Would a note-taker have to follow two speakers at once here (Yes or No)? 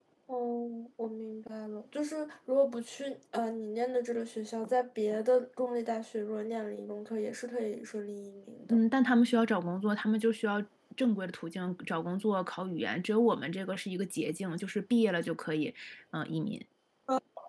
No